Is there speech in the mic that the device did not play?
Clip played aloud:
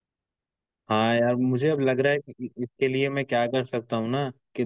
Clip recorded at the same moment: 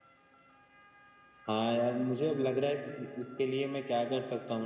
No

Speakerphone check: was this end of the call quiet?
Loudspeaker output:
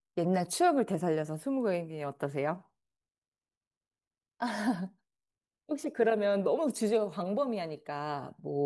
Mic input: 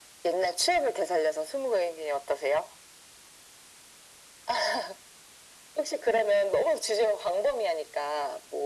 Yes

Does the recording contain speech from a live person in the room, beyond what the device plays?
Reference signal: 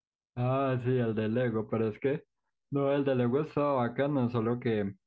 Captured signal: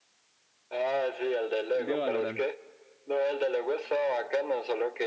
Yes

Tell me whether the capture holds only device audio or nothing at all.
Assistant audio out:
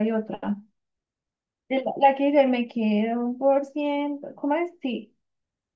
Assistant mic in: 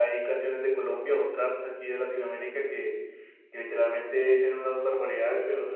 No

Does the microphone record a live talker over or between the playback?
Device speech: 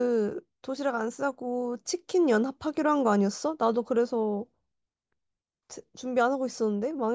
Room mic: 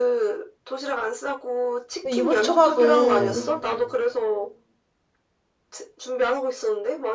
Yes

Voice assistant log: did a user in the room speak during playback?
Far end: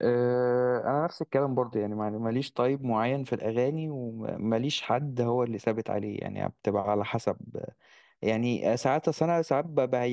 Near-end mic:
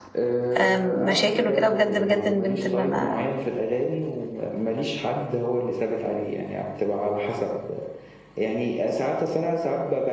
Yes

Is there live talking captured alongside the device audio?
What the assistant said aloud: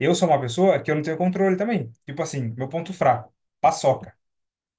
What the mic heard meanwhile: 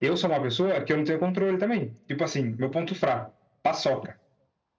No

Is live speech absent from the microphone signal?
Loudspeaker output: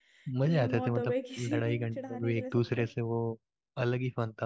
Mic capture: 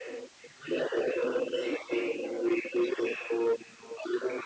Yes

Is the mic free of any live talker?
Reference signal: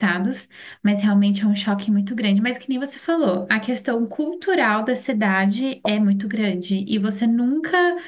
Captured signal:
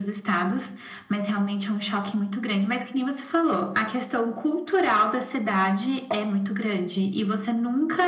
Yes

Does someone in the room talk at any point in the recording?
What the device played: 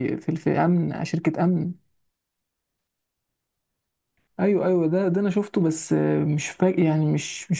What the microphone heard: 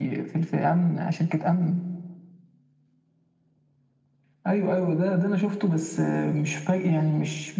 No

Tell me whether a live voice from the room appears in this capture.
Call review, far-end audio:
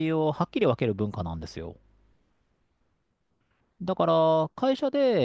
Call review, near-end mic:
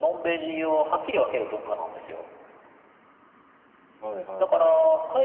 Yes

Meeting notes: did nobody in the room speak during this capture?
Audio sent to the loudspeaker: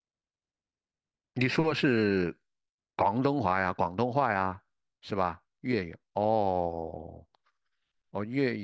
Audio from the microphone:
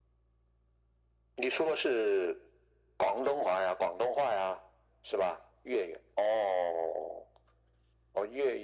Yes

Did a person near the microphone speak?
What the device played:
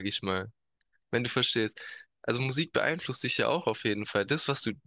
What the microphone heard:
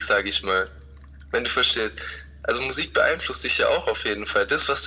No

